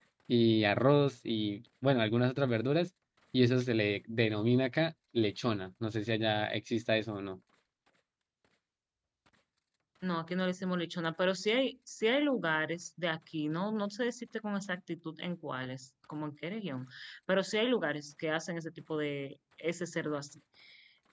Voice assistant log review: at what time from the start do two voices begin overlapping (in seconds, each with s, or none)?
none